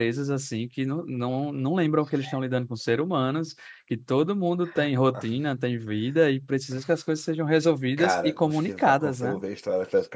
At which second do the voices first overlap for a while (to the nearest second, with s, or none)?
8 s